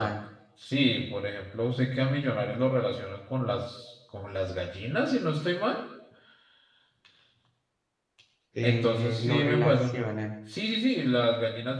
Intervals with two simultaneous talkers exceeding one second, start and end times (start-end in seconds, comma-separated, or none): 8.6-9.9